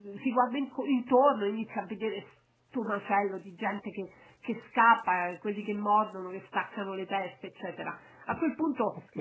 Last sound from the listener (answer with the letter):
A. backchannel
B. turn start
A